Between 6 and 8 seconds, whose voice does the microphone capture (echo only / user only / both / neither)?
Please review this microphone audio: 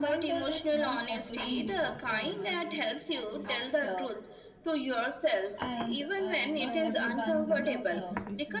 both